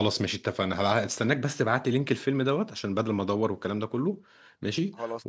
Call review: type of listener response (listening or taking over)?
listening